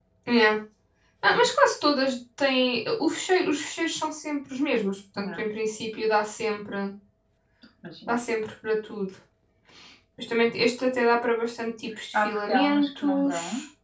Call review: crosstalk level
present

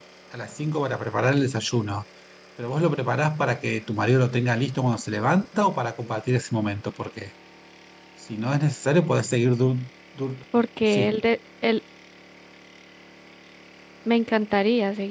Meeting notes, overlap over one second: none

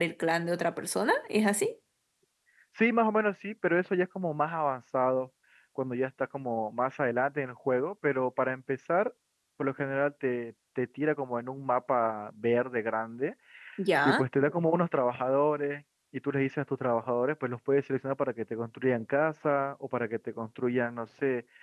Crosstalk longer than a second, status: none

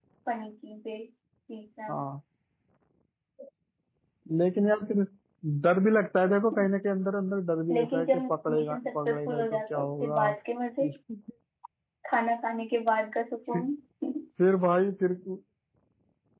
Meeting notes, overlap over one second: present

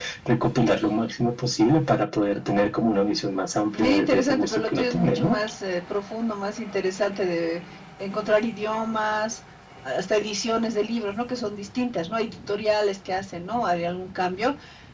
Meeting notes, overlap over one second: present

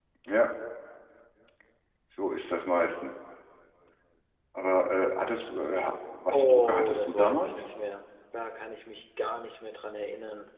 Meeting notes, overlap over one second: present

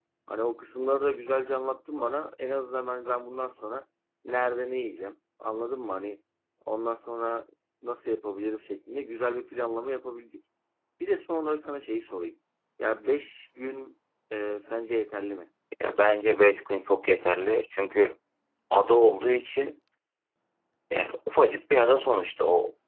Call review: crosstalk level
none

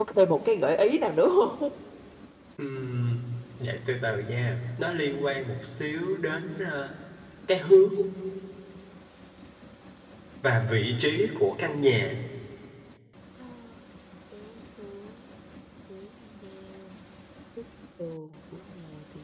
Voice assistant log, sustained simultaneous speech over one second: none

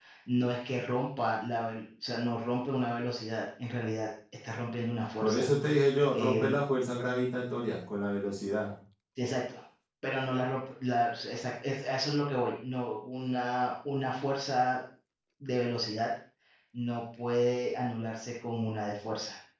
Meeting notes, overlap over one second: none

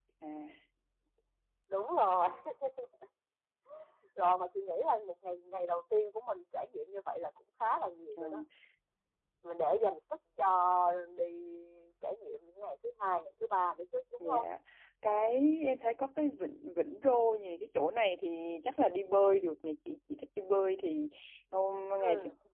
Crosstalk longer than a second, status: none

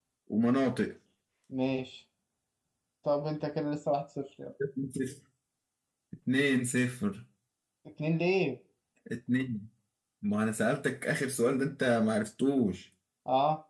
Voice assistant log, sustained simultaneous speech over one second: none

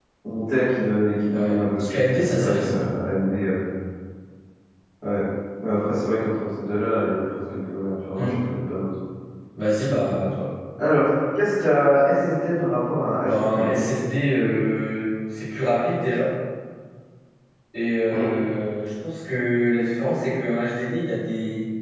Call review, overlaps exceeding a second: present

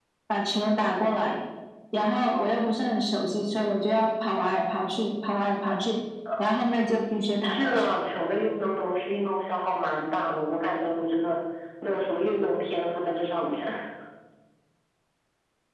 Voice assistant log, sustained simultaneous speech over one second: none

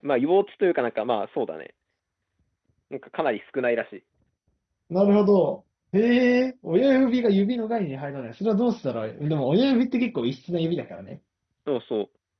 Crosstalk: none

